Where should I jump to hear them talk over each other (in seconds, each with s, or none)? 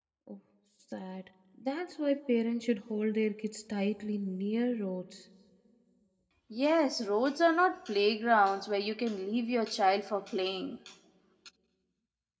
none